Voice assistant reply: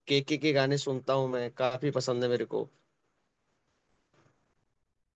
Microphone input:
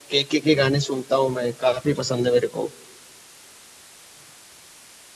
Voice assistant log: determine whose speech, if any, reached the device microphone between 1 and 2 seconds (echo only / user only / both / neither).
echo only